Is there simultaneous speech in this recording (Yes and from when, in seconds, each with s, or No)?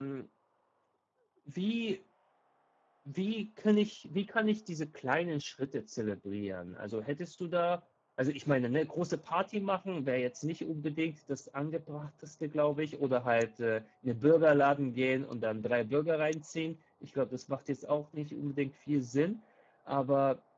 No